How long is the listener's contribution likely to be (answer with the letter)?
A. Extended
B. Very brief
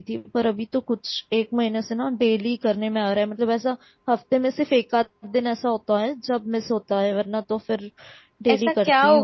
A